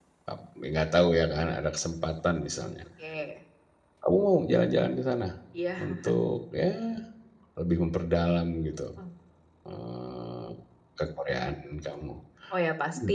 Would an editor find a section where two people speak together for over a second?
No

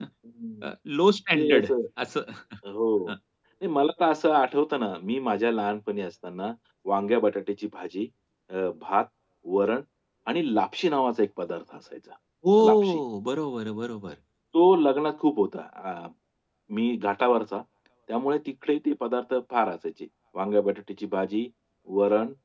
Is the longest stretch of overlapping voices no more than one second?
Yes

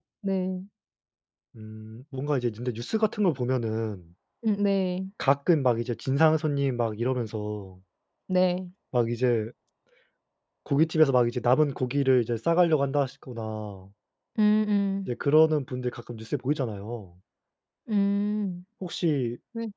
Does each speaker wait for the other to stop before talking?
Yes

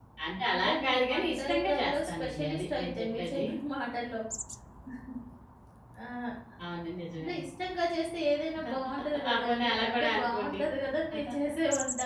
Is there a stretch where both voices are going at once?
Yes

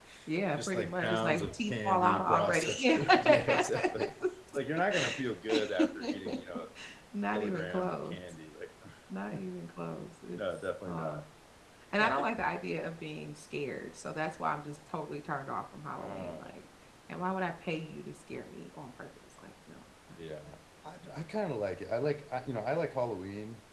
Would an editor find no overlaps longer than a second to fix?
No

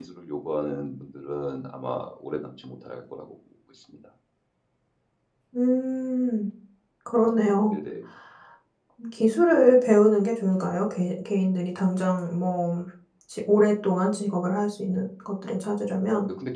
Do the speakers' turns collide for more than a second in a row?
No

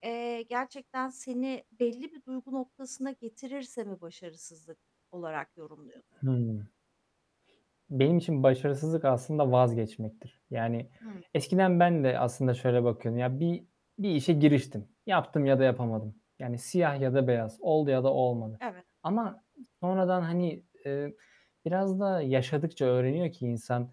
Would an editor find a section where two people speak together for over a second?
No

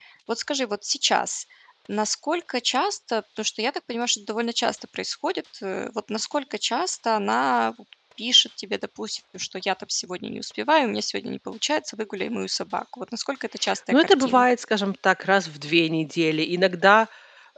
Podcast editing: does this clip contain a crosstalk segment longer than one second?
No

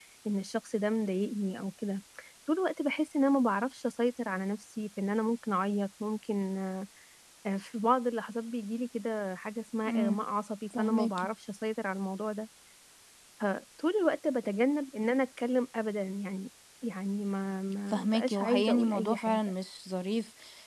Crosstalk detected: Yes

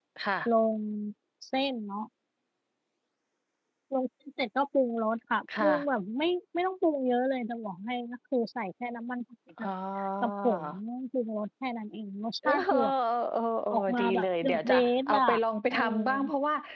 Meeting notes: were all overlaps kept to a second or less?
No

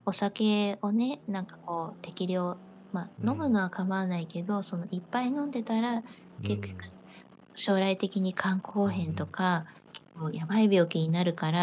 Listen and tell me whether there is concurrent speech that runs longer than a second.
No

